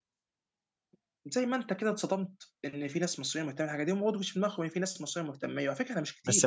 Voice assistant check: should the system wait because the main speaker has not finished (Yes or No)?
No